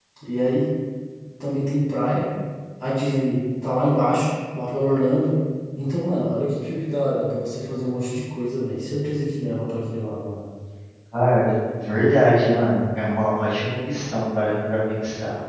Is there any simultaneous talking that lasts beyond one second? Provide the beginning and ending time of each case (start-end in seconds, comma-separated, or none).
none